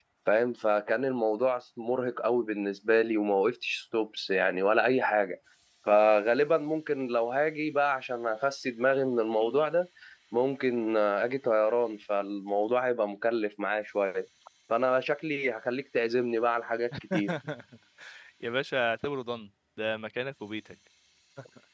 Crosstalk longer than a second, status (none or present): none